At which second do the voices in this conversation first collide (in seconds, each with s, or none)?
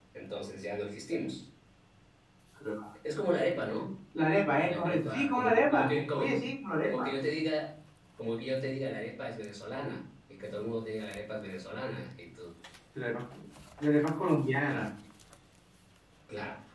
4.6 s